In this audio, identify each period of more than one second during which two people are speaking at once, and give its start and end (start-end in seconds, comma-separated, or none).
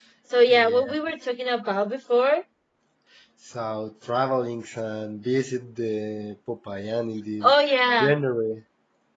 none